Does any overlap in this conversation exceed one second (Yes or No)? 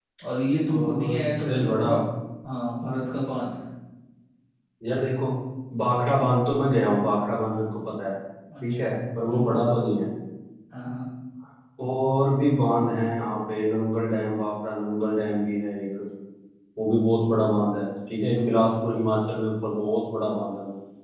Yes